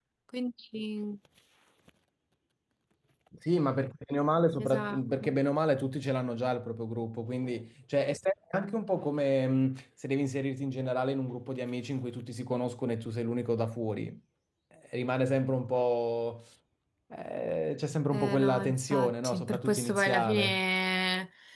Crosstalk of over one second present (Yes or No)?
Yes